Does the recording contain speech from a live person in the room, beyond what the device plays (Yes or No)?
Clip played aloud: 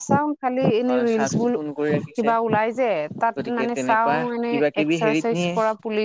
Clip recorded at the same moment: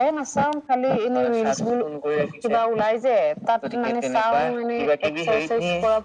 No